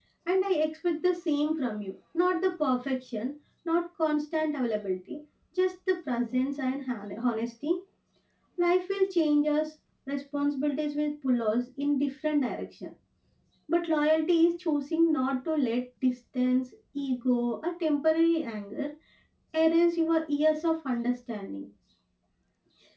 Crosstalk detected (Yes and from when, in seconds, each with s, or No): No